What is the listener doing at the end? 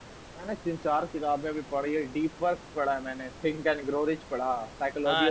taking over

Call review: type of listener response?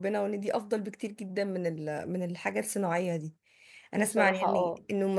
listening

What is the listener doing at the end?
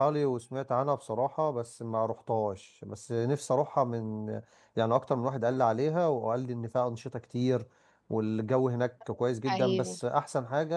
listening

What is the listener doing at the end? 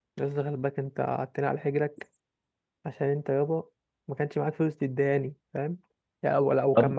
listening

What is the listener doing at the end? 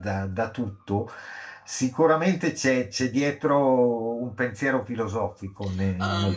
taking over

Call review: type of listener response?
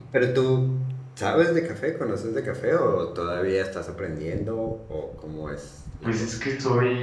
taking over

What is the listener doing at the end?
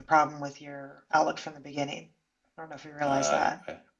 taking over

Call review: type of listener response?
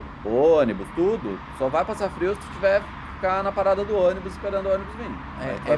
taking over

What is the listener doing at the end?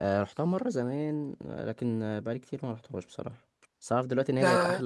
listening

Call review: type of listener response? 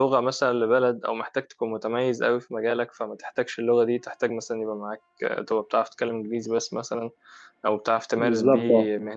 listening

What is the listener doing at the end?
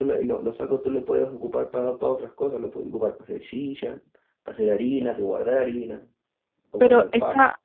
taking over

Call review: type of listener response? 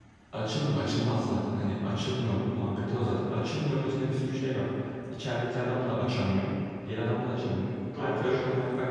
listening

